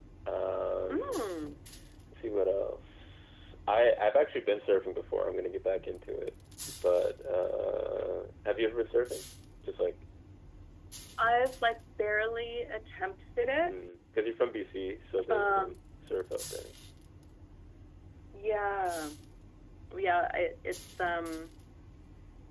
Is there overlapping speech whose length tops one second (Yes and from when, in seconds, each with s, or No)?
No